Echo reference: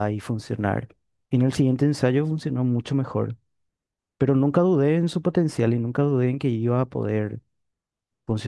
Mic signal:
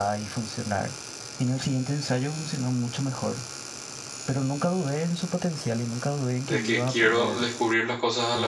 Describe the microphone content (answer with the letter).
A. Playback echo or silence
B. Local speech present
B